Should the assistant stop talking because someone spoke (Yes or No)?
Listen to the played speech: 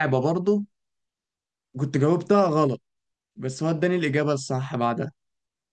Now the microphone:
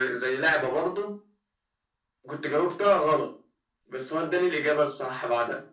No